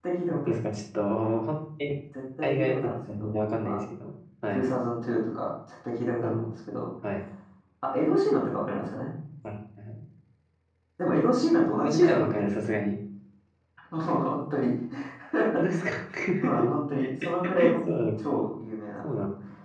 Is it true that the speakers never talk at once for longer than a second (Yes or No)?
No